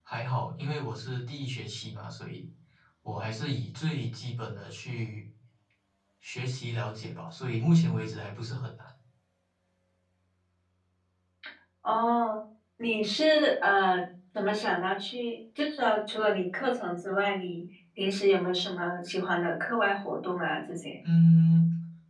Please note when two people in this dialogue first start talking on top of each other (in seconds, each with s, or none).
none